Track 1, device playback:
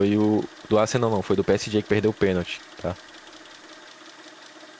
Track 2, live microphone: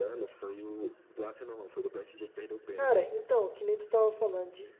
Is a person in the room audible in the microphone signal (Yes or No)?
Yes